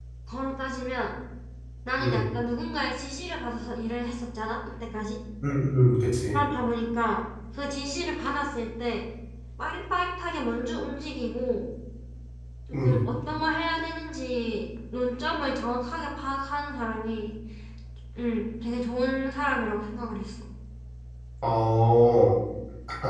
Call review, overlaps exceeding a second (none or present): none